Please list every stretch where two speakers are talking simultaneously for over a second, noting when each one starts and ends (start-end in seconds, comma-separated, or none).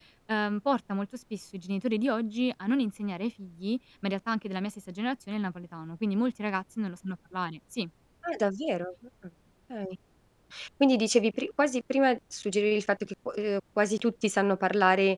none